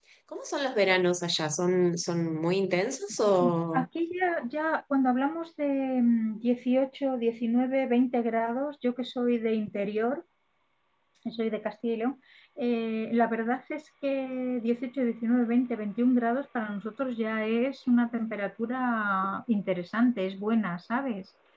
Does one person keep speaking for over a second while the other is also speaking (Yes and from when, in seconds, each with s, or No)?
No